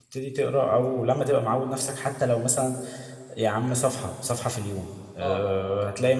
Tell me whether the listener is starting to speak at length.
No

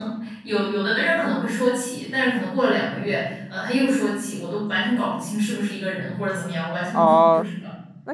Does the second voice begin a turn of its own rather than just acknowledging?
Yes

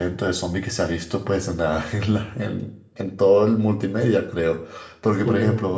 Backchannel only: Yes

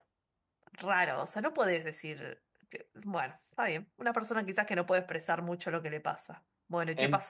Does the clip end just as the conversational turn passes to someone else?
Yes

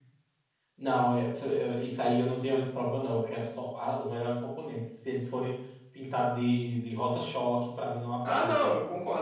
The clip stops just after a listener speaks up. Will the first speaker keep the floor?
No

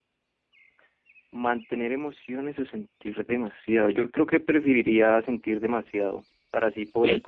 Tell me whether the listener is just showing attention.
Yes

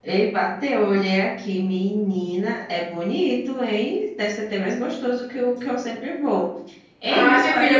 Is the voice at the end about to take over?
Yes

